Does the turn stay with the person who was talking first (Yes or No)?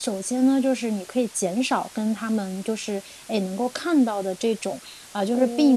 Yes